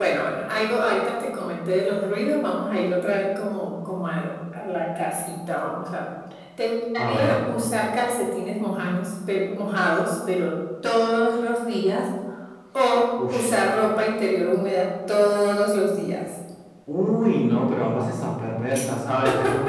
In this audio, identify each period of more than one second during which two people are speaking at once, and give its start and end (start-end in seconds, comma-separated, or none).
none